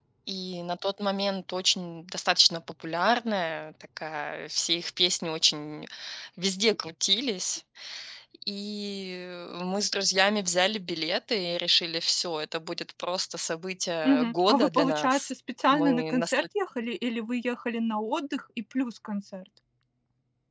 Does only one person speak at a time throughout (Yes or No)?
No